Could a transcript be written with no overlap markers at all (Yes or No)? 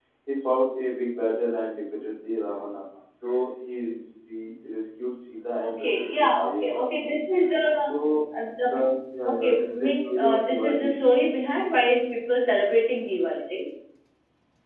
No